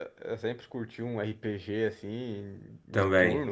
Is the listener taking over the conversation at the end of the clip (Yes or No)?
No